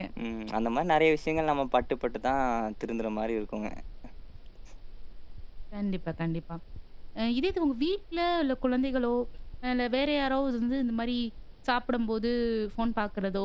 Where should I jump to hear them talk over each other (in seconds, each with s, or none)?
none